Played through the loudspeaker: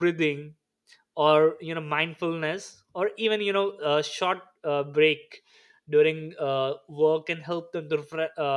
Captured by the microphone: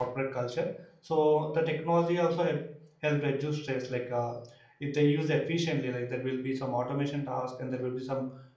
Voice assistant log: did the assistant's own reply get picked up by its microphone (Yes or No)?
No